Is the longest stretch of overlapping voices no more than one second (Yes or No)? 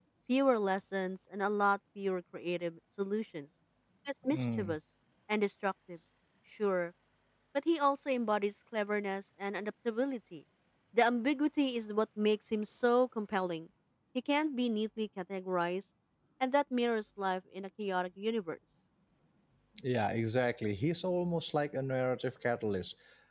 Yes